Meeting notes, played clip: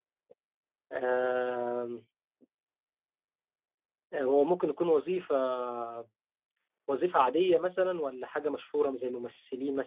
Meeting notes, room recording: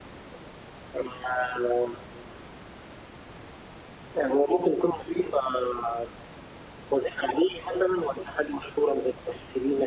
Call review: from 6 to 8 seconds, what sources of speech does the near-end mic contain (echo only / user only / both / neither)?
echo only